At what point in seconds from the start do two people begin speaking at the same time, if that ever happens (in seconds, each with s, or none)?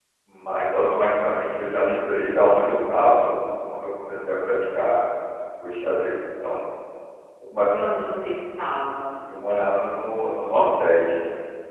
none